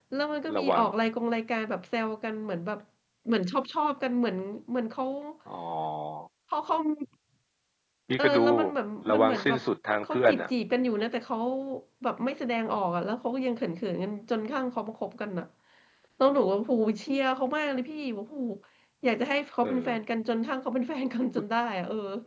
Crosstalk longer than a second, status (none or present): none